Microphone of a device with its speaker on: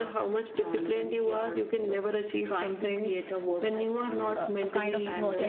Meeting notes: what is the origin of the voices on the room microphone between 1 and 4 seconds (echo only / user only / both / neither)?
echo only